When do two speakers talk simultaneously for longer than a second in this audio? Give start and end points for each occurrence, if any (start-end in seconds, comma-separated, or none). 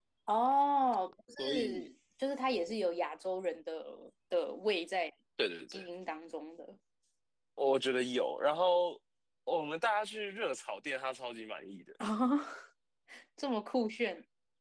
none